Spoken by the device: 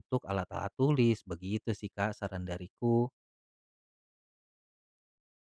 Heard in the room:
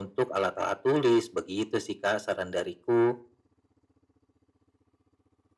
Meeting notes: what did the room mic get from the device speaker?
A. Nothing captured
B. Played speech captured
B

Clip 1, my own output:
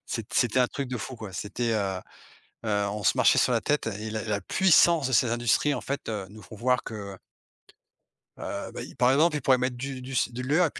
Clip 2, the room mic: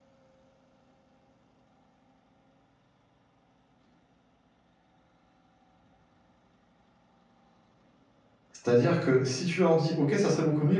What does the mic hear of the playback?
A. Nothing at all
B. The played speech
A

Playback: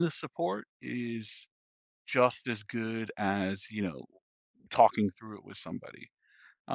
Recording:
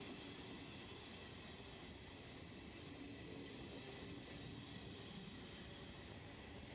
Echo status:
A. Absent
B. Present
A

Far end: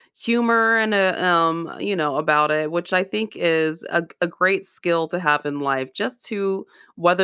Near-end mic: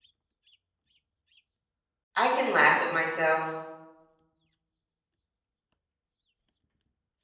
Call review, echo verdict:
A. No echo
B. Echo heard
A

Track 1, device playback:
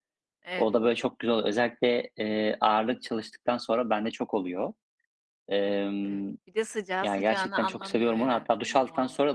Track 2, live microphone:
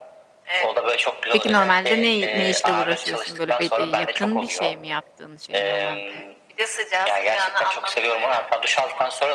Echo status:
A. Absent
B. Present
B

